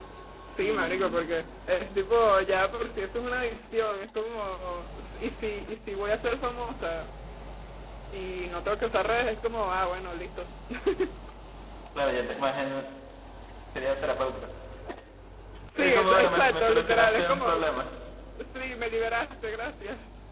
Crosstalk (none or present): present